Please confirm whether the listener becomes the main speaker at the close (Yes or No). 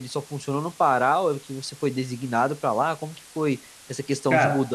No